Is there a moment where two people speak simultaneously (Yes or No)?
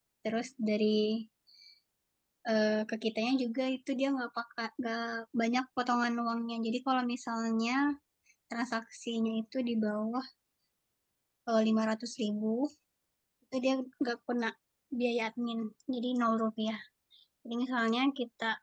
No